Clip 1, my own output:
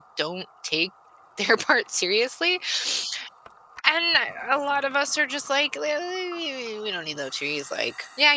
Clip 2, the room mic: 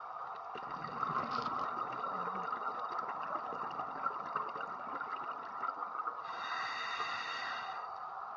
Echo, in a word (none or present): none